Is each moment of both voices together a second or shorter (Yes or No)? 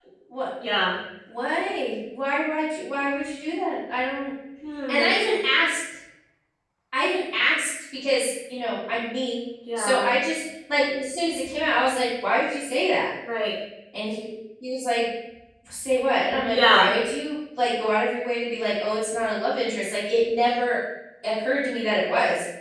Yes